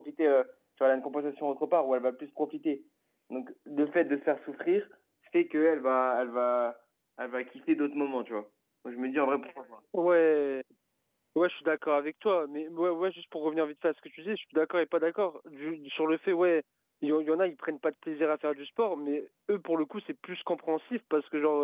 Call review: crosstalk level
none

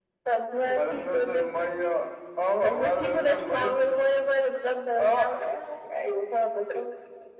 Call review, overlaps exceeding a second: present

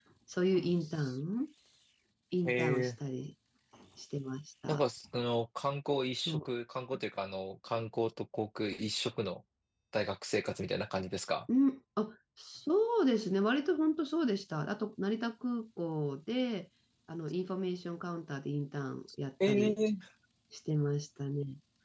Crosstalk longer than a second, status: none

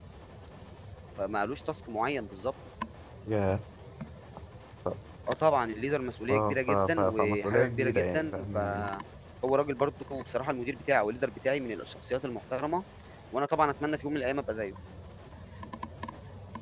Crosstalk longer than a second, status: present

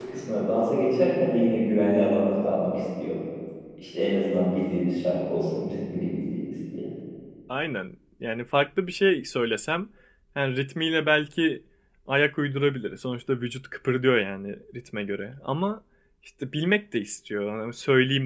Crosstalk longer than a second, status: none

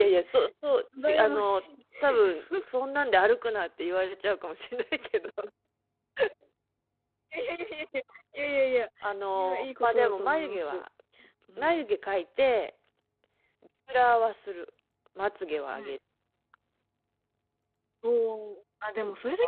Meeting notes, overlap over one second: present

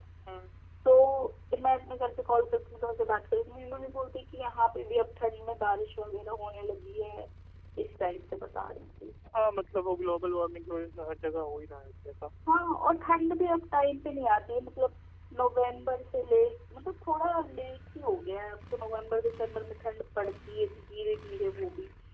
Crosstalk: none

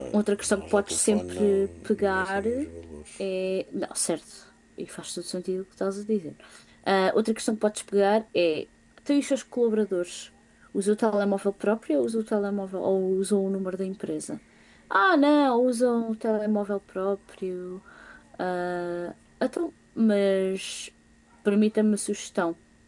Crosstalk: present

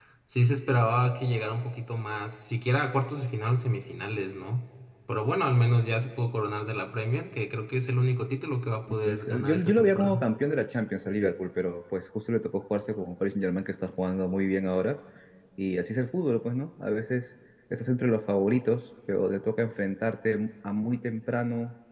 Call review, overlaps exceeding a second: present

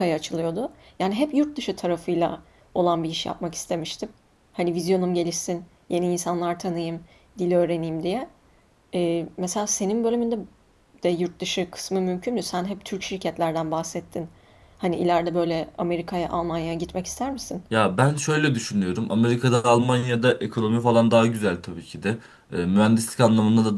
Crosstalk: none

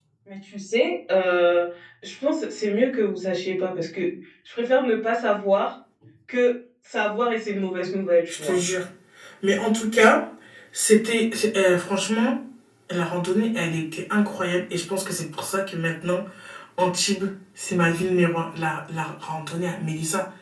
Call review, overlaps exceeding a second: none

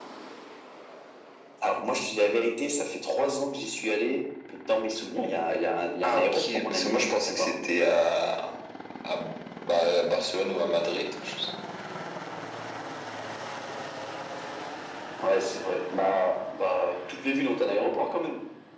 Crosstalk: present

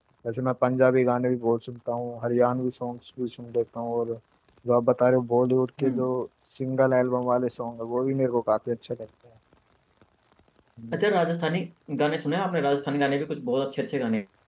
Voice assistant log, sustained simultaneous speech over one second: none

